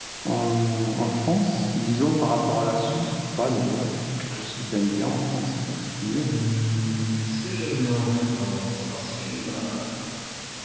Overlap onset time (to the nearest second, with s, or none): none